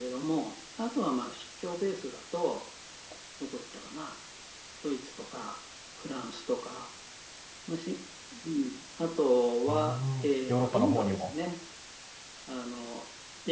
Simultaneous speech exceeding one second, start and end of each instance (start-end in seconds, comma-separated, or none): 9.7-11.2